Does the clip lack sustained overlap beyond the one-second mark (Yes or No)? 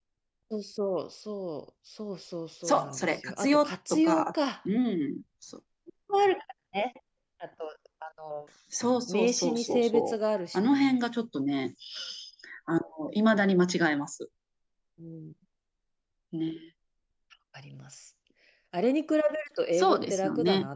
No